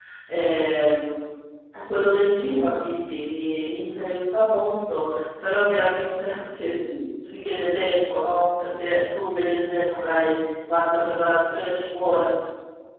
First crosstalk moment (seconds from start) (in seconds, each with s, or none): none